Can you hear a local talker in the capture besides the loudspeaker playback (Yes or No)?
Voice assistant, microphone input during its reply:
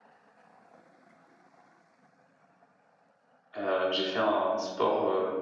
Yes